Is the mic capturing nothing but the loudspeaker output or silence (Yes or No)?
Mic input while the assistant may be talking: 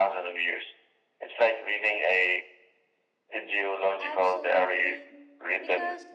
No